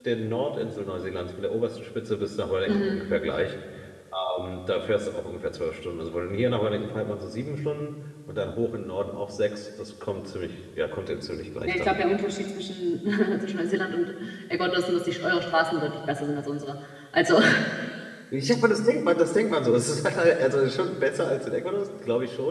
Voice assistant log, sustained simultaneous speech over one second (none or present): none